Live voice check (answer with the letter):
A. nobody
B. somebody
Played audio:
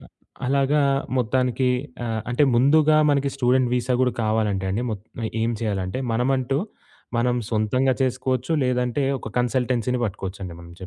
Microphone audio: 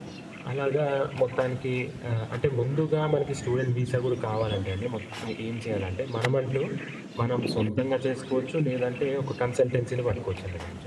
A